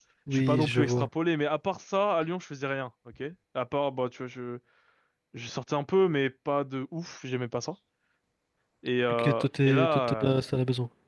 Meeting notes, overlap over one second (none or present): present